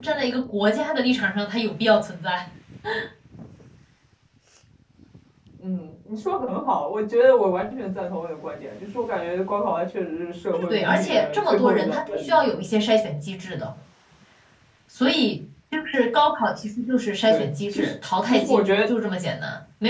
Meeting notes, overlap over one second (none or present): present